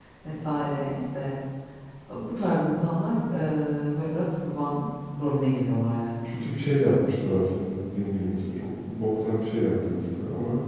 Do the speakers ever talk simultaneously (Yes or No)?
No